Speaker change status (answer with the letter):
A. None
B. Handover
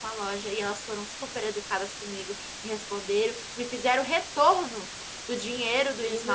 A